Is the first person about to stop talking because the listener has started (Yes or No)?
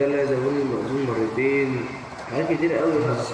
No